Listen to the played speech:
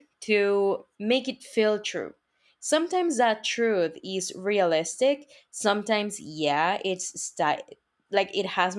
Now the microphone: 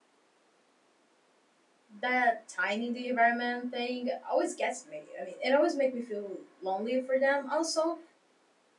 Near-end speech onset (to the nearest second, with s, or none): 2 s